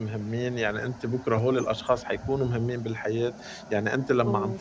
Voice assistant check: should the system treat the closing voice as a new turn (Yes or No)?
No